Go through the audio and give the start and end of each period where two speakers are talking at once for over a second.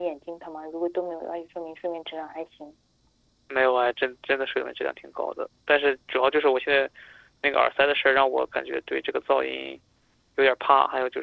none

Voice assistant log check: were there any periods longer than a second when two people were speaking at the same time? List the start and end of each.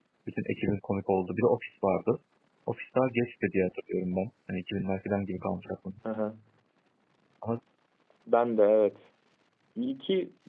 none

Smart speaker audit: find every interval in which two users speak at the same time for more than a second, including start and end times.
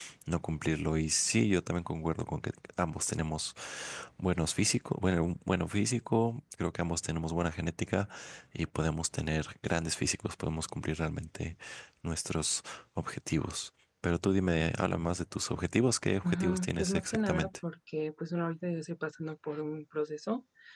16.2-17.5

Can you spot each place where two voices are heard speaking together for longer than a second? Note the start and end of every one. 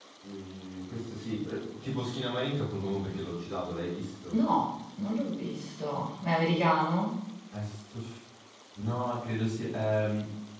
none

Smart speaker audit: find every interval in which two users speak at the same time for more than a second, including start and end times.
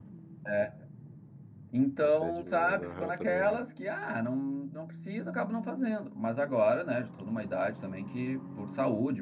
2.0-3.6

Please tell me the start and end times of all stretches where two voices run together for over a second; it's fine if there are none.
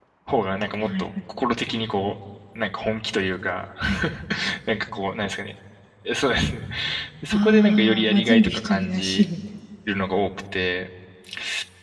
7.3-9.2

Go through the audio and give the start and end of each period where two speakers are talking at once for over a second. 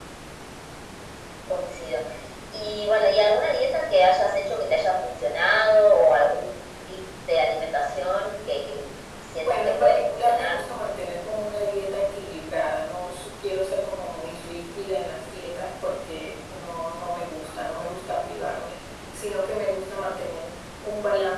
9.4-10.7

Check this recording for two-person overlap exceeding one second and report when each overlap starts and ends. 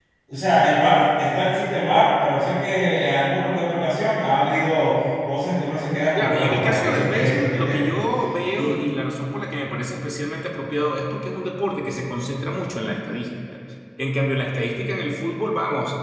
6.2-7.9

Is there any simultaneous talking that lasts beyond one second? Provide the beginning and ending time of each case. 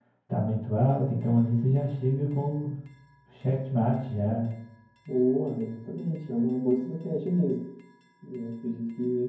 none

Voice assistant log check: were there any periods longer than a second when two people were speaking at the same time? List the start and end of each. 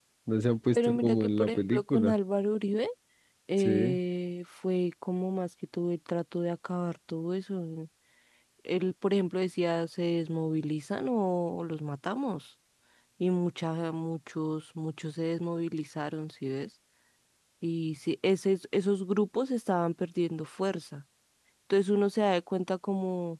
0.7-2.2

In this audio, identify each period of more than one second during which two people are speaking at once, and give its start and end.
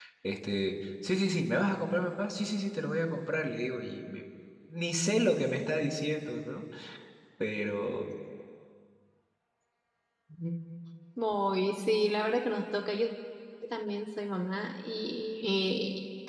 none

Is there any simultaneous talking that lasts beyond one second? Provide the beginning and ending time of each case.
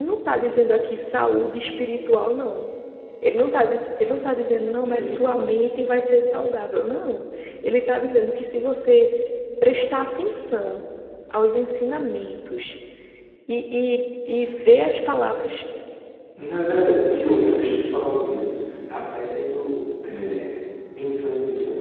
none

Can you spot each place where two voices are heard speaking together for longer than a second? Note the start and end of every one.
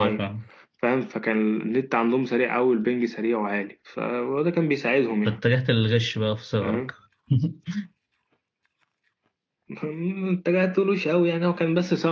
none

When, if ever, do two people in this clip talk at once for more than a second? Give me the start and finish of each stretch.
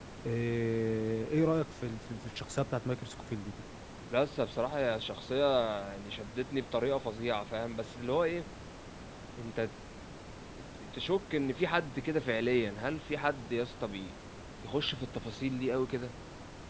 none

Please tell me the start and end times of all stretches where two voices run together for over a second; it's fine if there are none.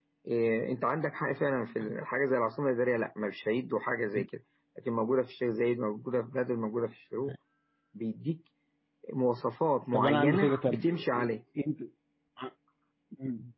9.9-11.3

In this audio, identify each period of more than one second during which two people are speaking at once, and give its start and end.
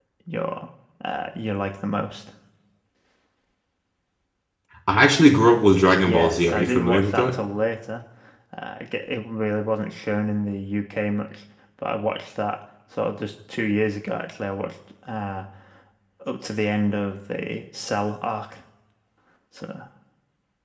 6.1-7.3

